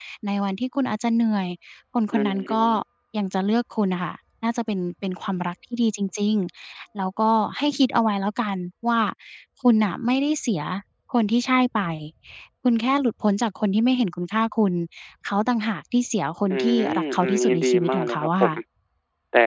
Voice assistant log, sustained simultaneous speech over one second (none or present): present